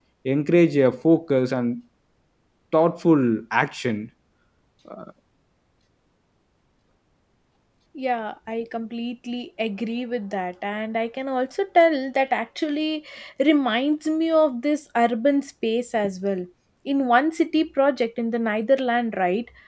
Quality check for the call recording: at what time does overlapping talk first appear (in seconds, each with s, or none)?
none